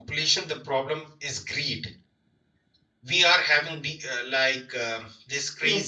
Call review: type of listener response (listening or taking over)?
listening